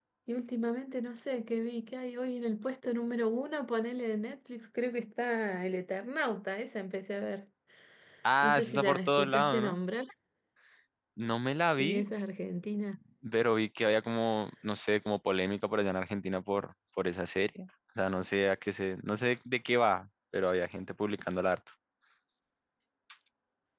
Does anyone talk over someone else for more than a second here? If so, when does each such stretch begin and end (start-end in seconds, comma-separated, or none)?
8.4-9.8